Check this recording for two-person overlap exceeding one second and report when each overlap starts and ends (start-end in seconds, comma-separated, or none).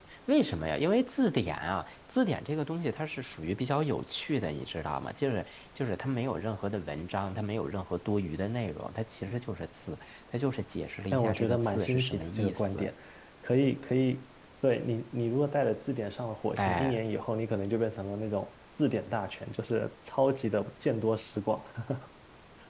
11.1-12.9